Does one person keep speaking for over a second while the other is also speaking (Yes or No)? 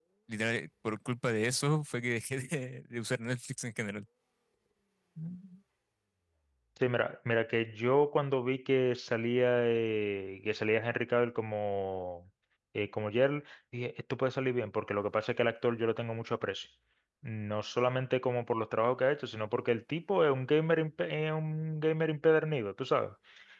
No